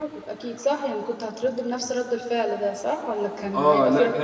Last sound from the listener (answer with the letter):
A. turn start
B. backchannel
A